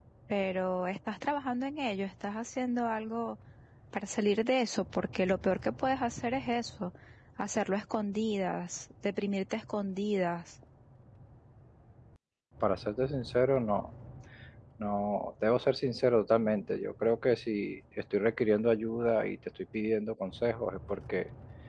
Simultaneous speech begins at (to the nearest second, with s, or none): none